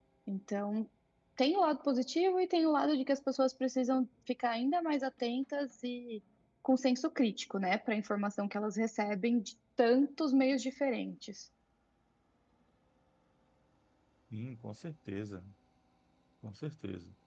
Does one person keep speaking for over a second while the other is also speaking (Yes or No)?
No